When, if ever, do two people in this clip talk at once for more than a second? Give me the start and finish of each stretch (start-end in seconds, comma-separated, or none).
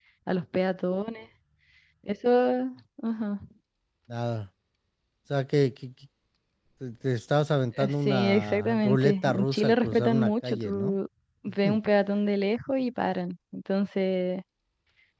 7.8-10.9